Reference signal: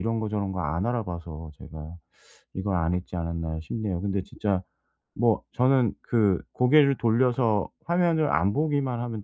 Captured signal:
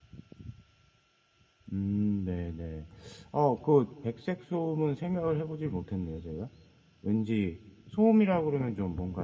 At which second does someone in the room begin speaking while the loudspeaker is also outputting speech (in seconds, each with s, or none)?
1.7 s